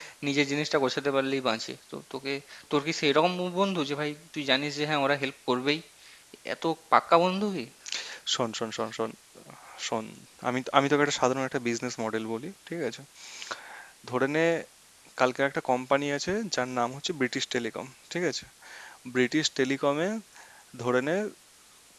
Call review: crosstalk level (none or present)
none